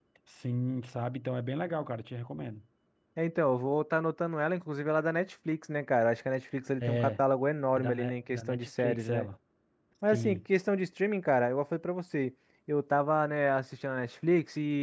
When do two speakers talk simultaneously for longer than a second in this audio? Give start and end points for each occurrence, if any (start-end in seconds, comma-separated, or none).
7.8-9.3